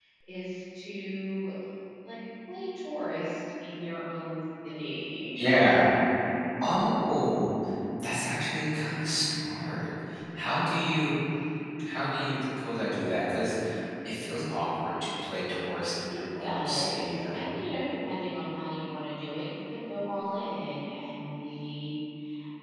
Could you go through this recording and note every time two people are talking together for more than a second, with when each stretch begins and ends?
16.1-17.4

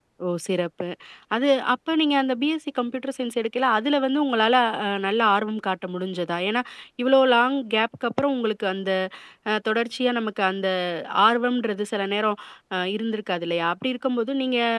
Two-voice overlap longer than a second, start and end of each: none

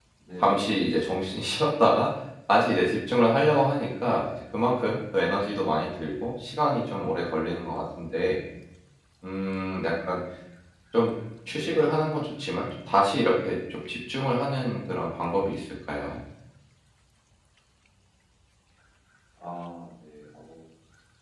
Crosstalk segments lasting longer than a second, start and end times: none

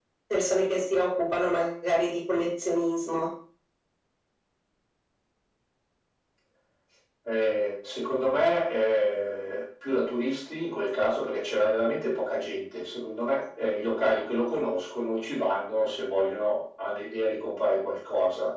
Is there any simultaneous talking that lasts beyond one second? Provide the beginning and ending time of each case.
none

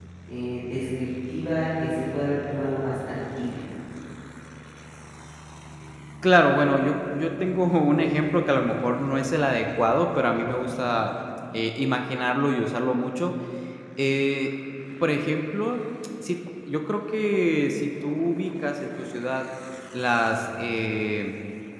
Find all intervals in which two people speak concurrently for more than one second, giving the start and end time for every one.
none

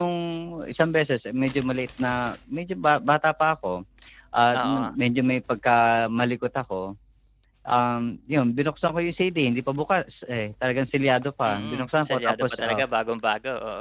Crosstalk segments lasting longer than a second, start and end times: 11.4-12.8

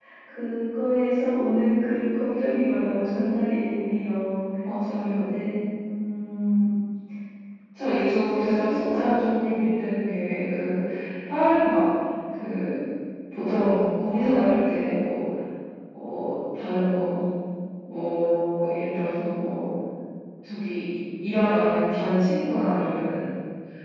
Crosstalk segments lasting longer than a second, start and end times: 8.0-9.6

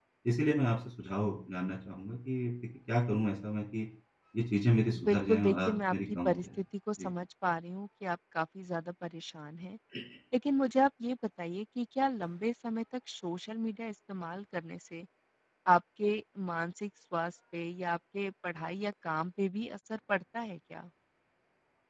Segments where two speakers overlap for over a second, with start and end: 5.0-6.4

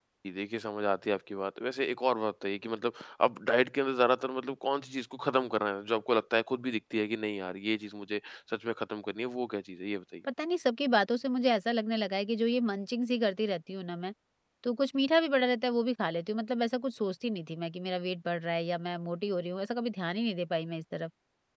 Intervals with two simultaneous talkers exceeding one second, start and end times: none

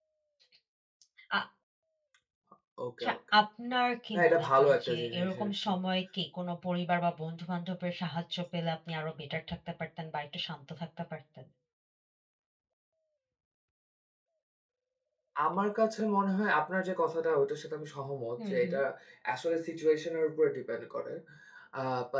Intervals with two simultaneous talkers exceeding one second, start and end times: 4.1-5.7

